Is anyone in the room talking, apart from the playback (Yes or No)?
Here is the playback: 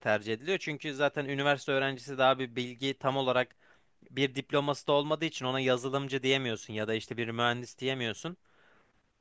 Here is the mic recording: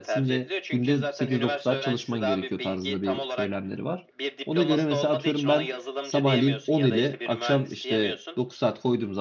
Yes